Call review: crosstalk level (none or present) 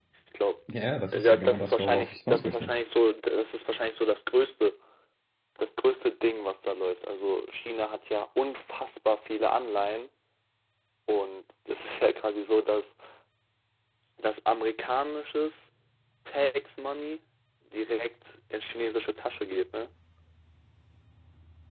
present